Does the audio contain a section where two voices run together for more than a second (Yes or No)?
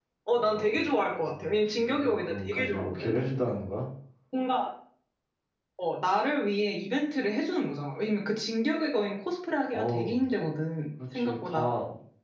Yes